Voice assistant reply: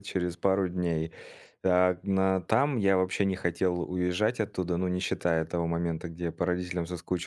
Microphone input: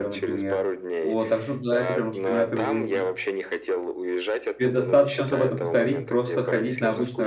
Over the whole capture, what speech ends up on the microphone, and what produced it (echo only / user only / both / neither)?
both